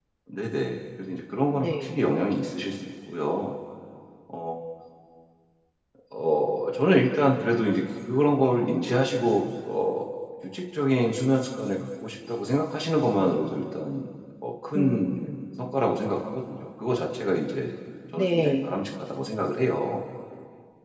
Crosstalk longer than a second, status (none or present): none